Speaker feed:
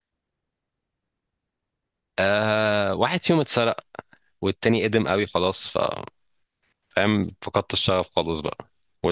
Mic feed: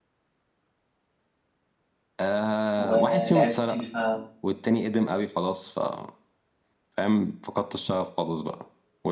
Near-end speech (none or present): present